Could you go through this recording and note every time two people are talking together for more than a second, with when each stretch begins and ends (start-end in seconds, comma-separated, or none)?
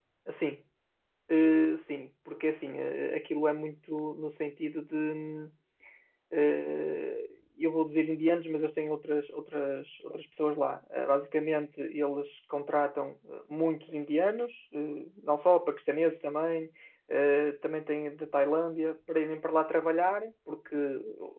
none